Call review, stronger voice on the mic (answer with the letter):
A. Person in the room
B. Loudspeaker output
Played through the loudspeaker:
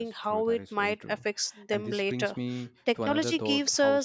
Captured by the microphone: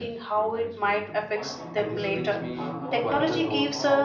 B